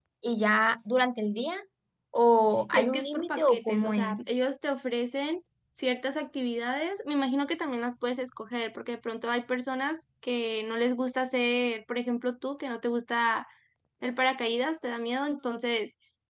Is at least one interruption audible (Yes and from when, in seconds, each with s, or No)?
Yes, from 2.7 s